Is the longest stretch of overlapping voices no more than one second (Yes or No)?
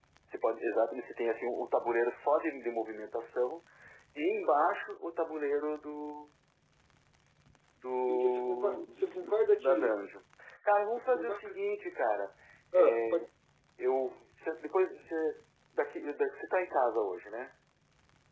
No